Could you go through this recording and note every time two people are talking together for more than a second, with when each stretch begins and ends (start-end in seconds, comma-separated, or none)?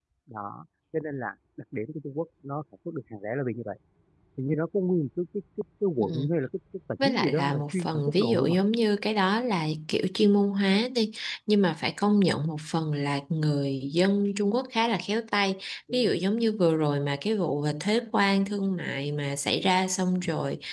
7.0-8.6